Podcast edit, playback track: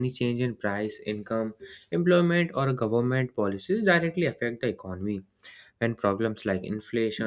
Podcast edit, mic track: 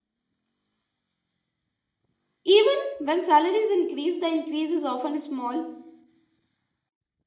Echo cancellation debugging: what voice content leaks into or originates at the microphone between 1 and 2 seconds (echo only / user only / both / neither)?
neither